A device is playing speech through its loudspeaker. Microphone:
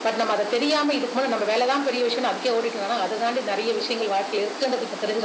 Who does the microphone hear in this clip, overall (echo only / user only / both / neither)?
echo only